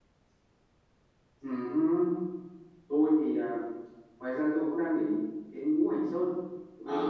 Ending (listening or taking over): taking over